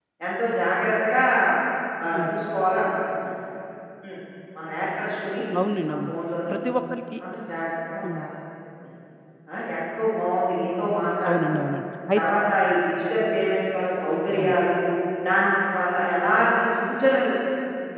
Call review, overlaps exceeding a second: none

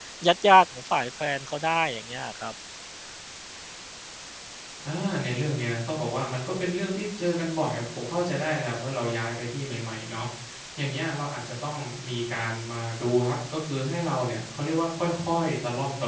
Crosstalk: none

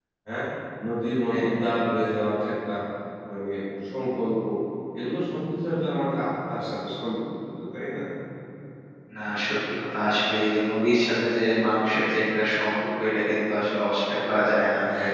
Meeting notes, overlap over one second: none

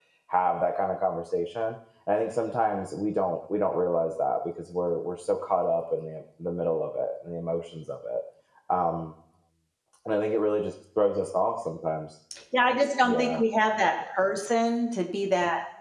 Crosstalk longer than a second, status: none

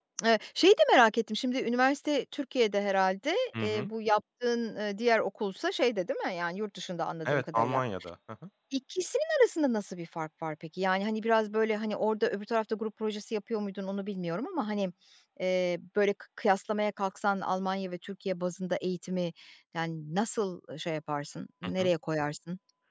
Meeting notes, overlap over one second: none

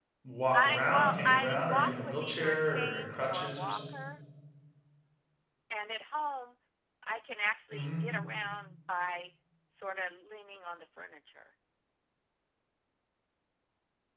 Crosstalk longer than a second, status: present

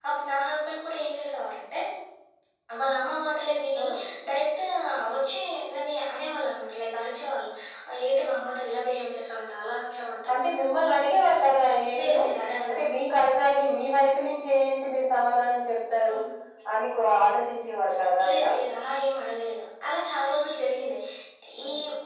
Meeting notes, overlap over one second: none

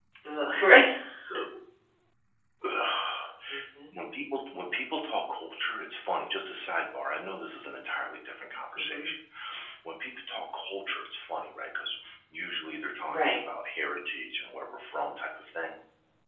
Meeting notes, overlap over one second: none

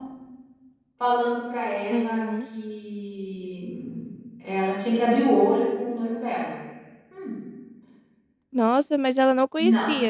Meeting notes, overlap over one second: none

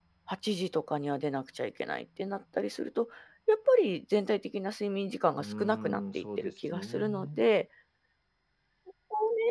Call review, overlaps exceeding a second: present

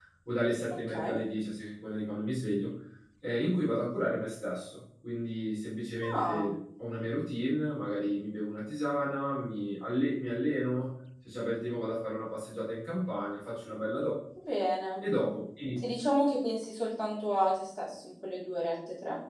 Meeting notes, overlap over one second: none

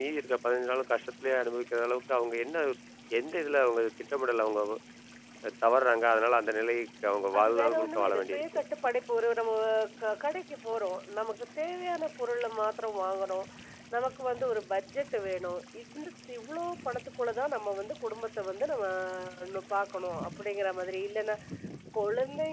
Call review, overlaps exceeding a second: present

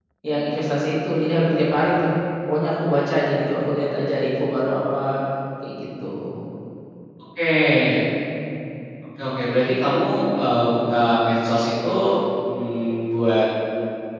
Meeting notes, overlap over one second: none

